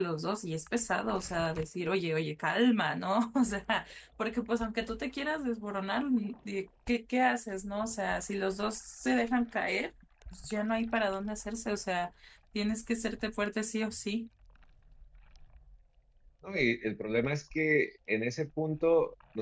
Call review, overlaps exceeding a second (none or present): none